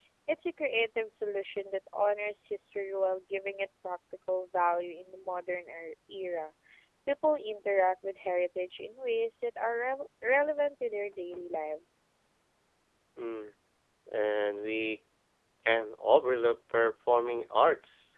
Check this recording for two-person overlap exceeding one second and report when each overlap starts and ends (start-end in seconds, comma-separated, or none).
none